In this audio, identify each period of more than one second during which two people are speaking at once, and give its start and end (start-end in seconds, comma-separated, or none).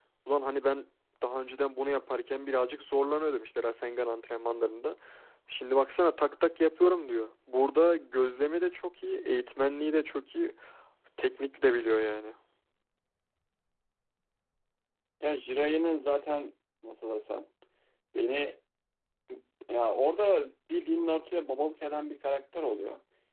none